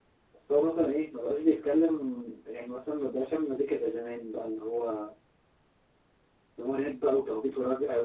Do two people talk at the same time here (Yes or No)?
No